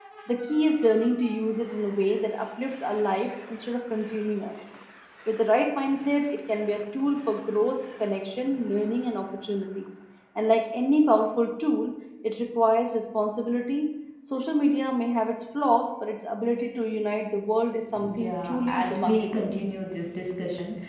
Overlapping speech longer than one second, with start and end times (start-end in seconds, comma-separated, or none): 18.1-19.5